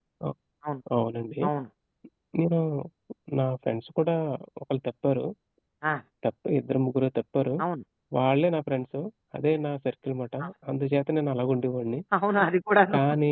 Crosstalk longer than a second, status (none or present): none